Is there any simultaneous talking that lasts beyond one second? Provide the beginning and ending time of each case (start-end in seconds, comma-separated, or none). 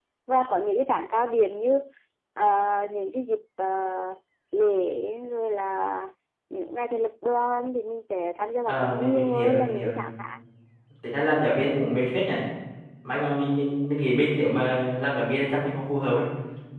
8.6-10.0